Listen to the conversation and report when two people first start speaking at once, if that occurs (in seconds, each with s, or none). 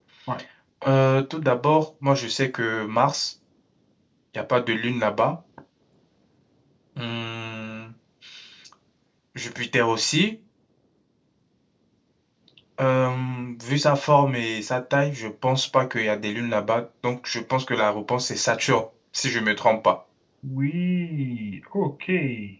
none